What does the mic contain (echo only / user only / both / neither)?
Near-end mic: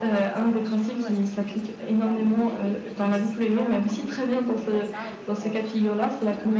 both